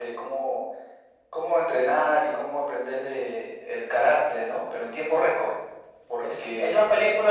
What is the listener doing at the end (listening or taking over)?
taking over